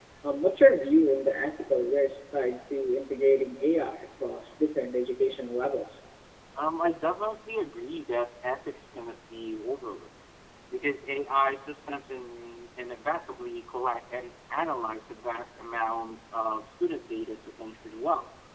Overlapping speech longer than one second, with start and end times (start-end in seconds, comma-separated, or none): none